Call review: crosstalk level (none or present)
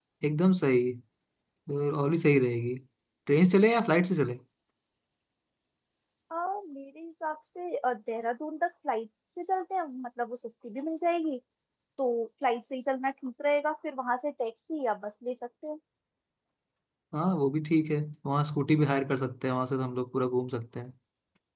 none